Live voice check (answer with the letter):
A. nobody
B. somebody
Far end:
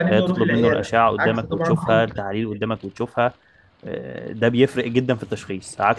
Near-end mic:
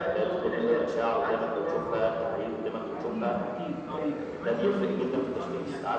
B